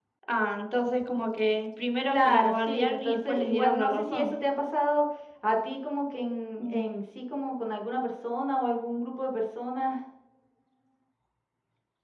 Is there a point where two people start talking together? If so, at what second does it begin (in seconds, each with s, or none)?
2.1 s